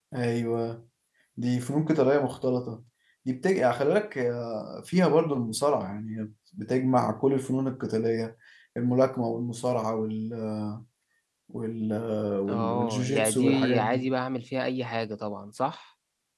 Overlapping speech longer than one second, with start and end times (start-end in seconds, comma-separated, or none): 12.5-14.1